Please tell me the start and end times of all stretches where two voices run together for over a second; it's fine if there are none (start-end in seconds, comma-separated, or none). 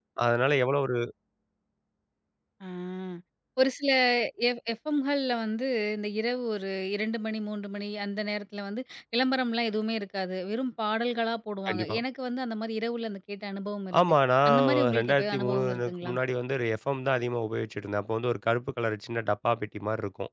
14.5-16.1